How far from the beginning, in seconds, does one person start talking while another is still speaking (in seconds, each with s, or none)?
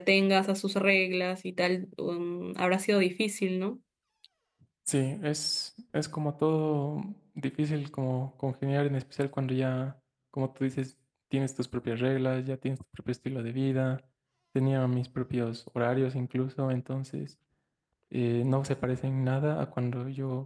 none